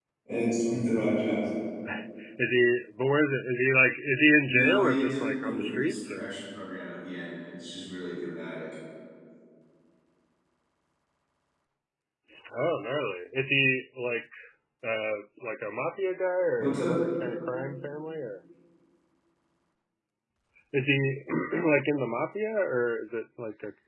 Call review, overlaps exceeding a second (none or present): present